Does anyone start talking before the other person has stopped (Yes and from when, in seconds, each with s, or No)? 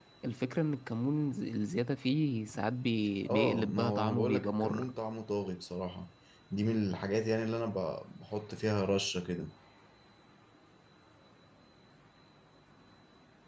Yes, from 3.2 s